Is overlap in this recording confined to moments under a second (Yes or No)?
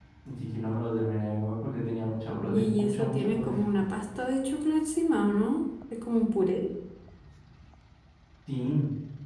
No